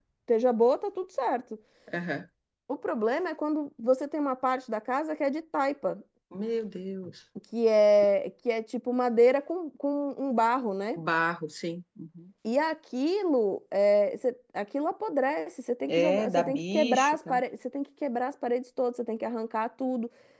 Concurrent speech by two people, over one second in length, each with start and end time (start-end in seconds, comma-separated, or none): 15.9-17.4